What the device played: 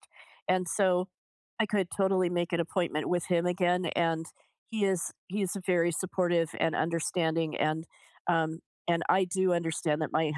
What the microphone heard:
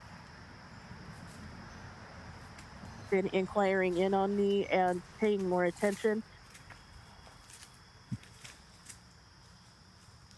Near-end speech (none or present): present